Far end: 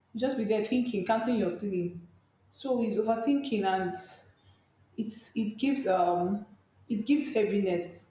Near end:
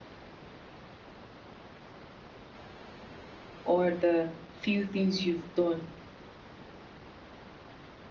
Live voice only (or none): or the few things you've done.